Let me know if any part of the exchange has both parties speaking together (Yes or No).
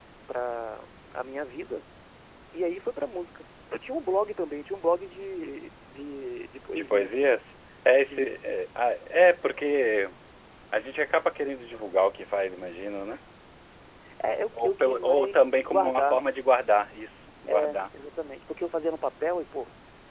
Yes